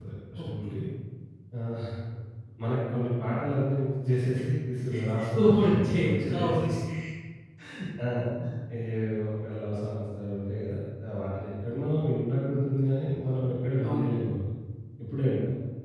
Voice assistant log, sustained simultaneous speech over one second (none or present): present